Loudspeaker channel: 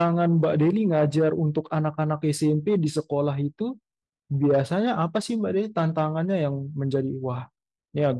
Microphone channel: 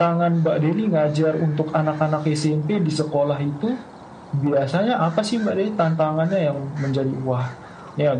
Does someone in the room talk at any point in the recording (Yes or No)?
No